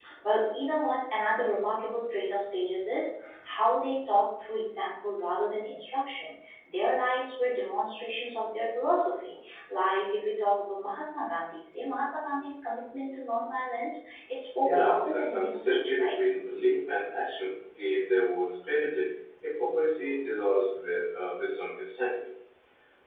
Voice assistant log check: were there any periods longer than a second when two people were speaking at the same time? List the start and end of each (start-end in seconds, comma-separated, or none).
14.6-16.2